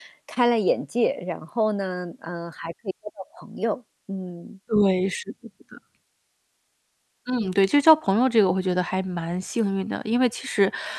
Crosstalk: none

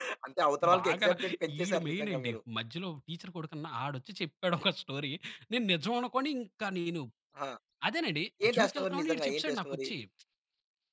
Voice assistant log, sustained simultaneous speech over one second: present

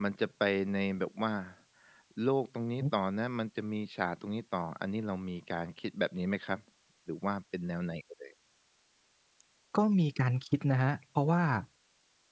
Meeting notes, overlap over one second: none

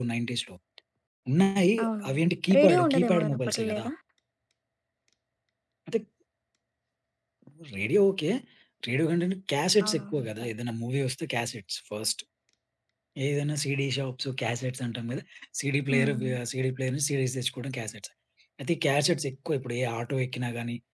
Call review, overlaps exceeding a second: present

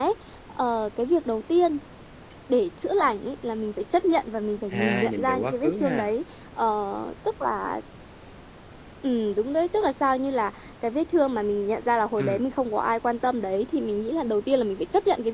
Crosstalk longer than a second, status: present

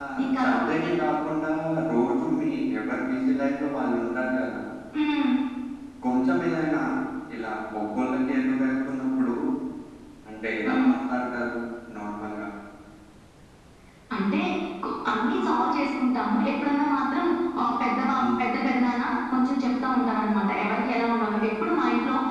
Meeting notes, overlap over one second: none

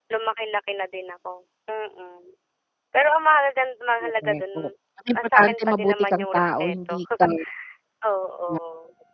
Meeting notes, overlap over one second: present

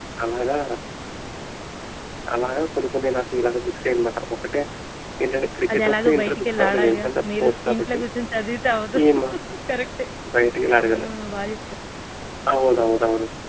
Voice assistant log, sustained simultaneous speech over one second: present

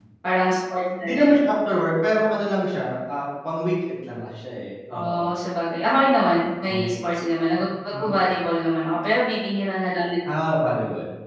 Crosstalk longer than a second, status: none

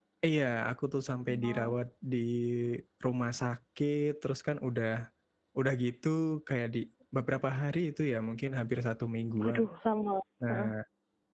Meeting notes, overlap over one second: none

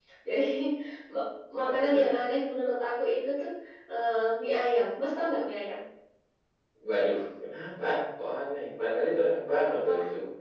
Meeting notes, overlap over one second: none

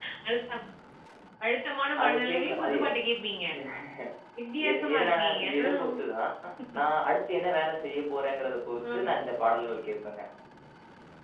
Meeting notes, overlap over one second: present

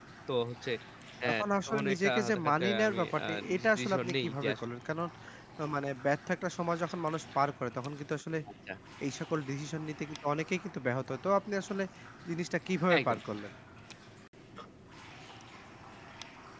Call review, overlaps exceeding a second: present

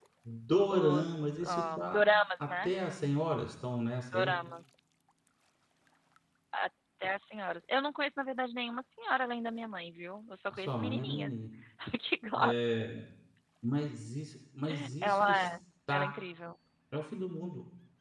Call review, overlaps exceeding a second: present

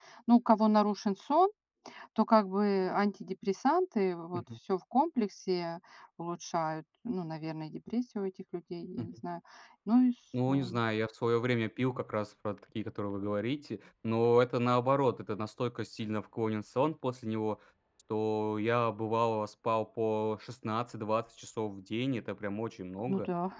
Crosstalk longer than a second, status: none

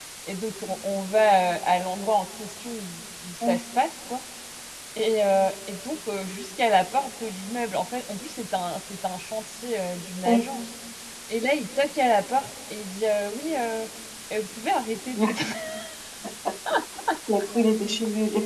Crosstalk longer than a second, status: none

